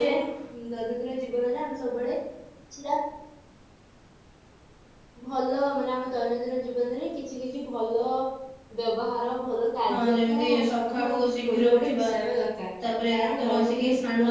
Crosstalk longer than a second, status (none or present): present